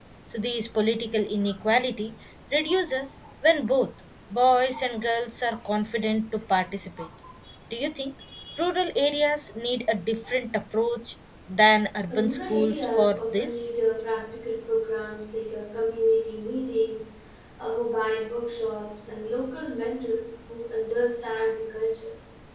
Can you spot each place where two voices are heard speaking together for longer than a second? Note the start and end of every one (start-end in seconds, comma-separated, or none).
12.2-13.7